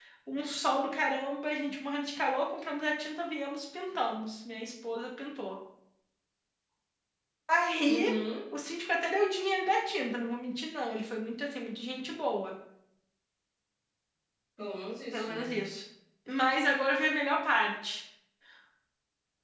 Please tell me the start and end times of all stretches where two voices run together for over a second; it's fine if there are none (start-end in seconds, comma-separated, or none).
none